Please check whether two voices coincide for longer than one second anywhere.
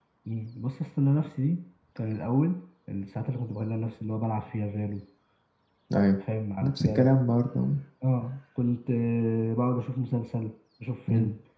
No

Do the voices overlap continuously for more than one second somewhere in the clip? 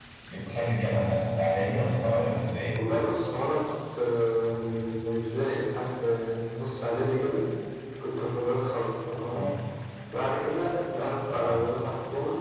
No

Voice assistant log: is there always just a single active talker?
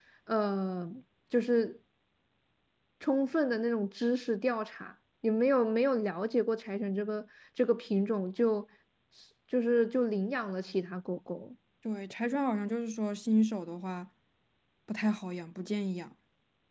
Yes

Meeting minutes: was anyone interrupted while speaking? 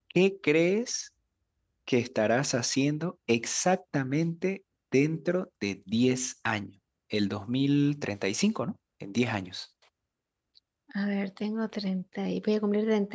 No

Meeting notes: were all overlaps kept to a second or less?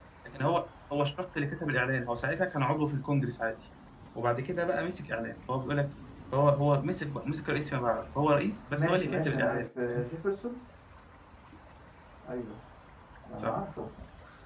No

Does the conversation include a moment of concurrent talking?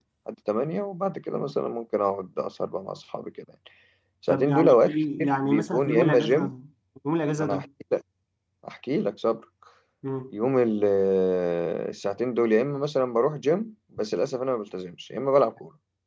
Yes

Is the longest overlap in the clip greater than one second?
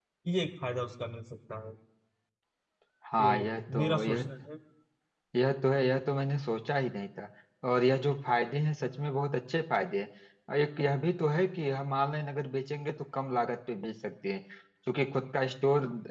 No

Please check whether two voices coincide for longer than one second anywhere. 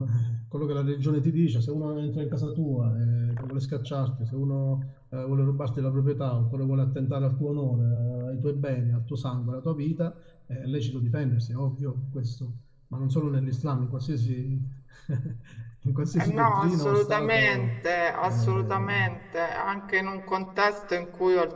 Yes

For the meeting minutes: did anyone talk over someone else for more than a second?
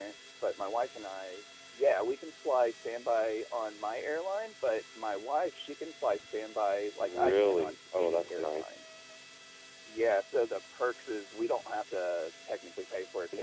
Yes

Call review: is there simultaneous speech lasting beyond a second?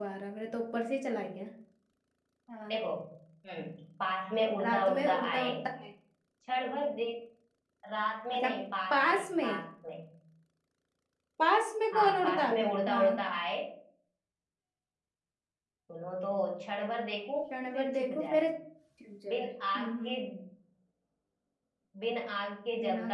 Yes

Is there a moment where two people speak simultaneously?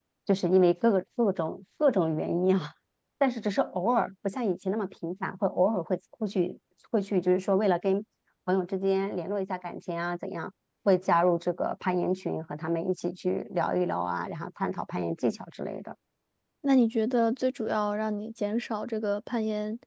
No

